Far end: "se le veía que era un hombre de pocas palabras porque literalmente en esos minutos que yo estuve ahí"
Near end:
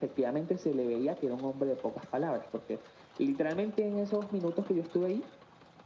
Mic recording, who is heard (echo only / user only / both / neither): echo only